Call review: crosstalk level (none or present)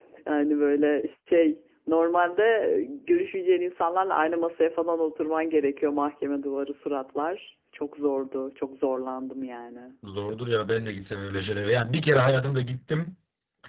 none